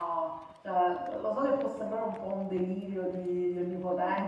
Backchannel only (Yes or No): No